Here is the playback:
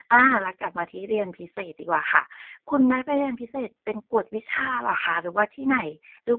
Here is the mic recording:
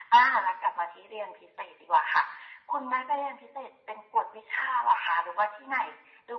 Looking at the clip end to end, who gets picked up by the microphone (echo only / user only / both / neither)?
echo only